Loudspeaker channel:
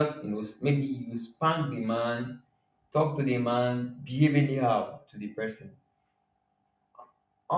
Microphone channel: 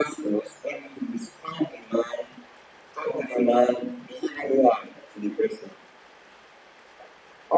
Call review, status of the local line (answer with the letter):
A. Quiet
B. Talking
A